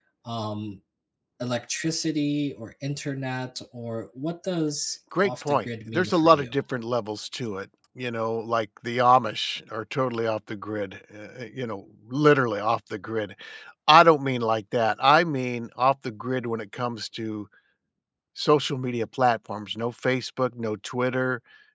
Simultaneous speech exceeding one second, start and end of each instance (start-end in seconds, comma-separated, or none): 5.2-6.5